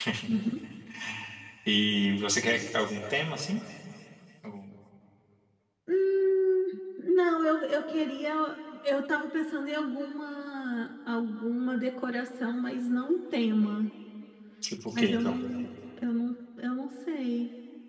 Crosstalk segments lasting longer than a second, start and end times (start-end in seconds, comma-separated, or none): none